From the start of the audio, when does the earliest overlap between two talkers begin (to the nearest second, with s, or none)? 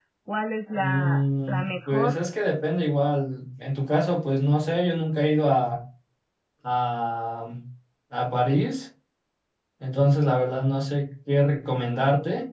1 s